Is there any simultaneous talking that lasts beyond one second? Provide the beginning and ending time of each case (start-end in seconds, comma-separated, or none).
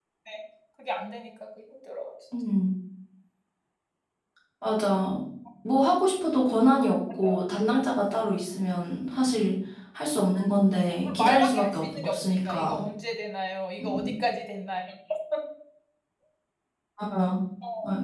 10.7-12.8